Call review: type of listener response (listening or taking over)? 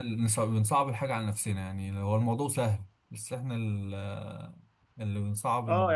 taking over